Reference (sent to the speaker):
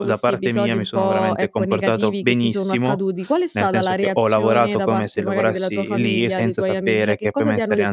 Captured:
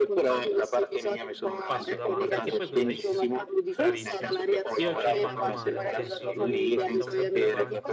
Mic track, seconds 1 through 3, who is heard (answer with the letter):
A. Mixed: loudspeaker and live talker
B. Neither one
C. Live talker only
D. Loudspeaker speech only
A